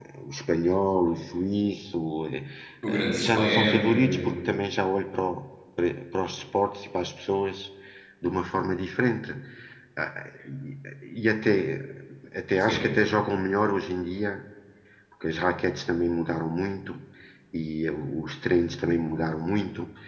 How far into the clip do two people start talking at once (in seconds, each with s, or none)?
2.9 s